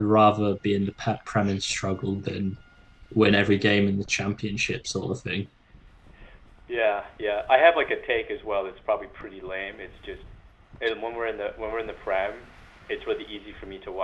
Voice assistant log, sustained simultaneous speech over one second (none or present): none